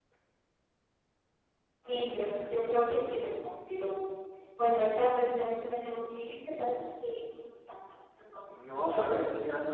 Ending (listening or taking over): taking over